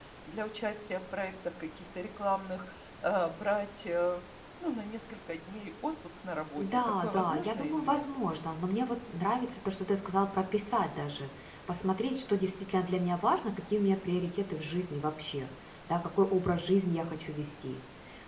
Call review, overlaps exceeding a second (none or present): present